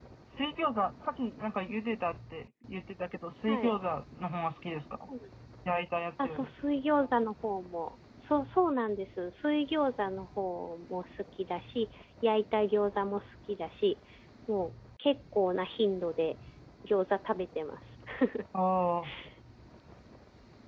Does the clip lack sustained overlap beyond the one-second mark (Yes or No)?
Yes